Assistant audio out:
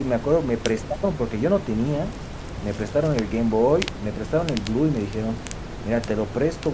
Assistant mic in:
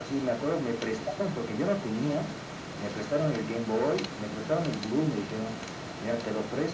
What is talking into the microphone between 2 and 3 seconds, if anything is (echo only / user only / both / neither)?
echo only